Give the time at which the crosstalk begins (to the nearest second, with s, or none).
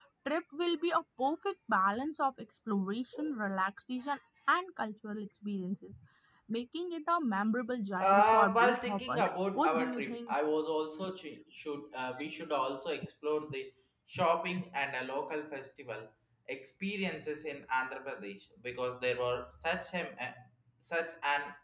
8 s